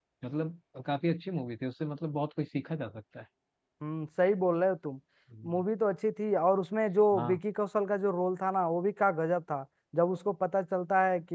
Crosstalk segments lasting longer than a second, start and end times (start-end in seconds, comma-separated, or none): none